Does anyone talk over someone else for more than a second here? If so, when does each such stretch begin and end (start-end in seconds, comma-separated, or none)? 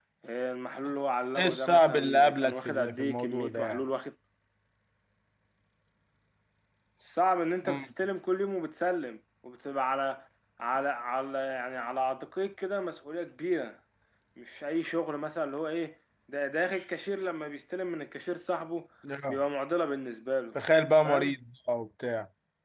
1.4-3.8